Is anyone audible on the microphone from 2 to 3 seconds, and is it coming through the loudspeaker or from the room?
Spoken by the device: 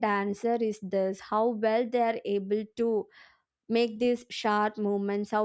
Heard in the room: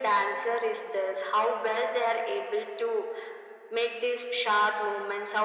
echo only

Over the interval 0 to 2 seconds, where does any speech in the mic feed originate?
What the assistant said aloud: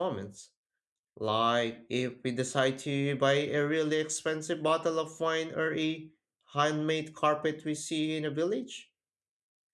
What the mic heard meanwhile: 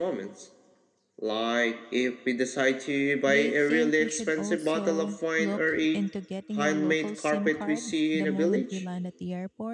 echo only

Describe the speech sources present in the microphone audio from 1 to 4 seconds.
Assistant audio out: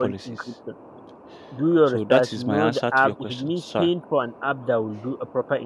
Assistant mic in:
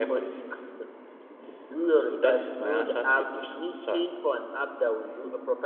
echo only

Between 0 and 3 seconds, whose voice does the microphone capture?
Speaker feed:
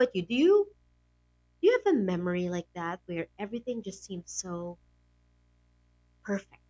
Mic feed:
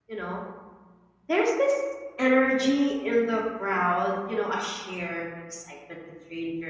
user only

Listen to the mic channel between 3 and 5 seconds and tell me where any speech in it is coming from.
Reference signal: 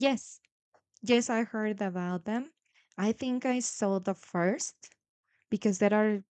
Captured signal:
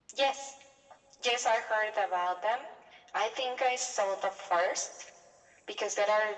echo only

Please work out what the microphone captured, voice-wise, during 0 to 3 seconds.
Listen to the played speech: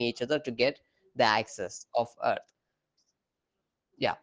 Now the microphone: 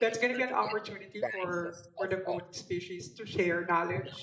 both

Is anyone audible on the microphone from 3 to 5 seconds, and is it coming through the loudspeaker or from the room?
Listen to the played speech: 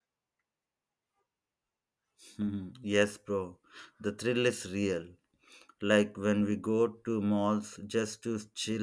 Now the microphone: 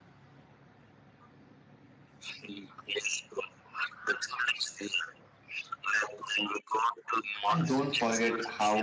echo only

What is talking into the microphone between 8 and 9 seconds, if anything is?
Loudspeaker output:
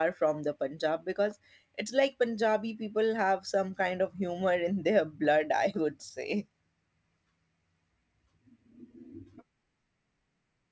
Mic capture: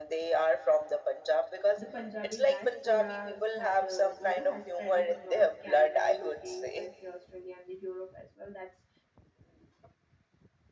user only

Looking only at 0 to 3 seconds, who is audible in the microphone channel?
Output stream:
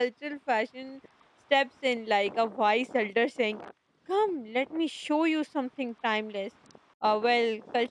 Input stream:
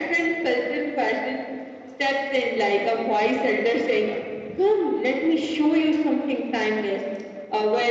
echo only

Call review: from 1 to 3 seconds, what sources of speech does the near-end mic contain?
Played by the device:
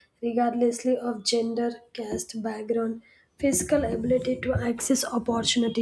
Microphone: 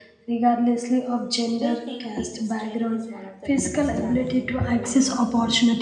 both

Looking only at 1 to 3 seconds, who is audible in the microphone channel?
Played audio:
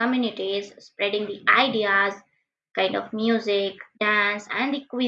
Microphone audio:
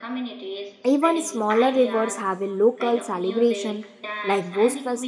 both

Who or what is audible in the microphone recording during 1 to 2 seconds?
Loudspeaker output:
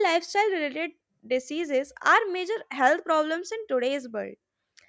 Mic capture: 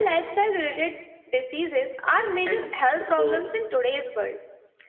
echo only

